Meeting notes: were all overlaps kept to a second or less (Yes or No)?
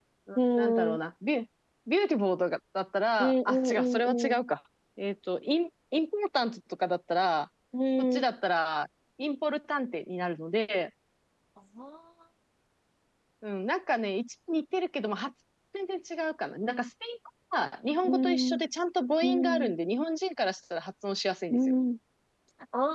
No